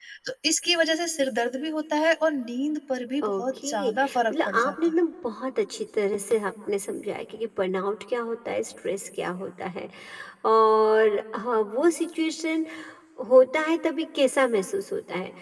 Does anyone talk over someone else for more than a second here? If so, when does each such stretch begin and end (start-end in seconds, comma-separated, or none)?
3.2-4.7